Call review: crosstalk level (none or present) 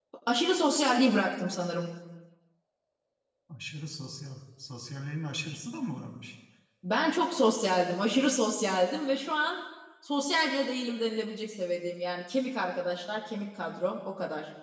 none